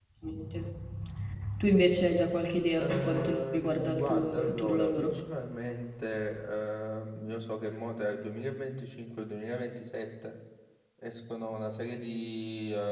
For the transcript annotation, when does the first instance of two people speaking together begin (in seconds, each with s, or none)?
2.8 s